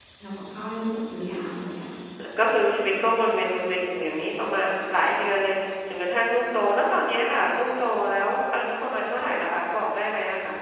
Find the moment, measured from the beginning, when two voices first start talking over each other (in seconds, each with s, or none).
none